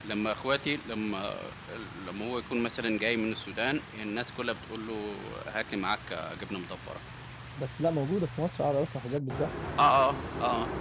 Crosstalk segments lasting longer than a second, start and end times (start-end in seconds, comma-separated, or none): none